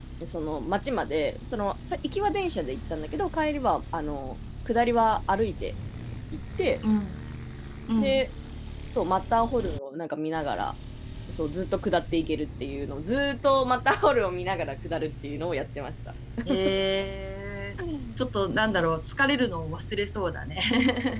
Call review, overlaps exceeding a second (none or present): none